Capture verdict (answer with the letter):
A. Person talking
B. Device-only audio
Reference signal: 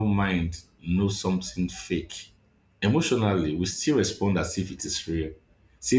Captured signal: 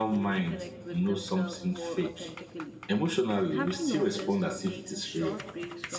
A